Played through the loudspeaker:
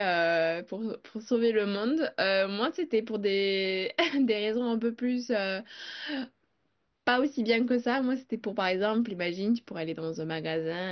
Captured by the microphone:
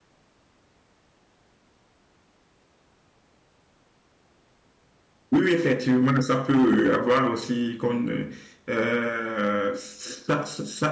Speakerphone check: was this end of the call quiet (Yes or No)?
No